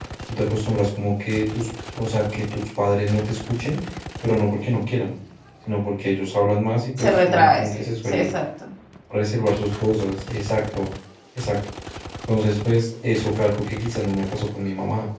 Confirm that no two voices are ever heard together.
No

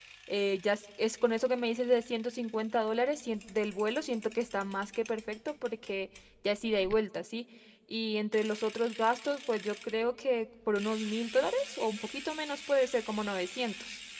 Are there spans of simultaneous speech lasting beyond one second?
No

